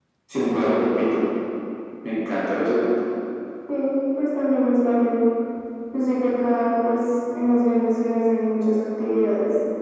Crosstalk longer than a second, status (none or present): none